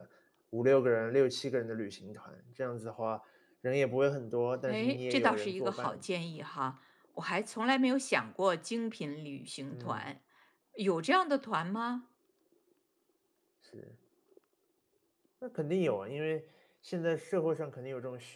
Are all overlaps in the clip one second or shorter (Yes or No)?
No